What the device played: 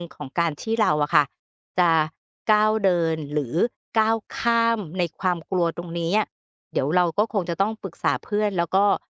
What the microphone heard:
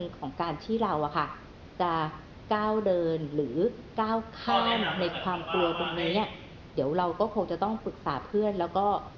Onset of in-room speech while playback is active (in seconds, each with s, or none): 4.5 s